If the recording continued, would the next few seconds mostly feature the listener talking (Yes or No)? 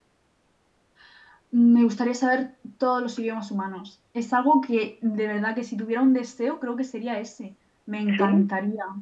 No